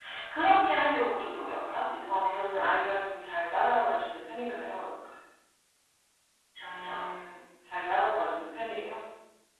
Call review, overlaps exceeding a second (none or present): none